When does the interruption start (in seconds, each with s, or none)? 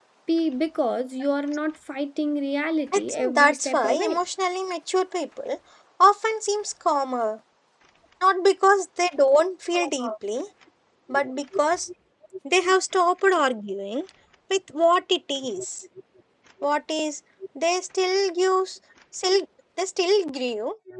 2.9 s